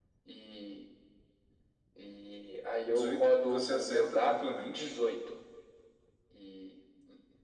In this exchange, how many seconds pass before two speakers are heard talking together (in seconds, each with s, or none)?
2.9 s